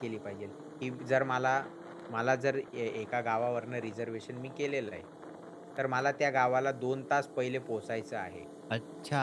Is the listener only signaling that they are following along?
No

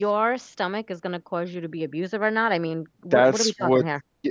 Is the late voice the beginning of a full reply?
Yes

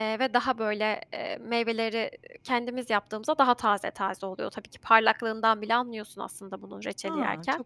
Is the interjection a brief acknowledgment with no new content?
No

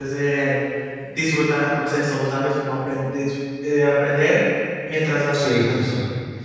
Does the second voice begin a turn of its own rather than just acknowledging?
Yes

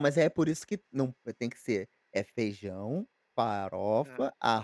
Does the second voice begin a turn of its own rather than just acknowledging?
No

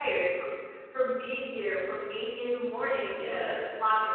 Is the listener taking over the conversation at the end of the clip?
No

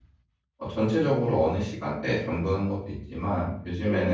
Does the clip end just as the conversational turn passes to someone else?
No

